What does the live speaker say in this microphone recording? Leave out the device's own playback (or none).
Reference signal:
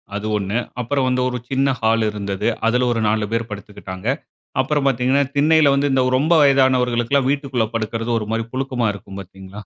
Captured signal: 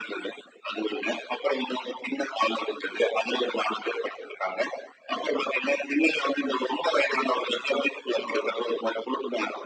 none